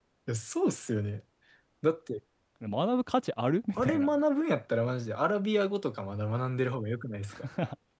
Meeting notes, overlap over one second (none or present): none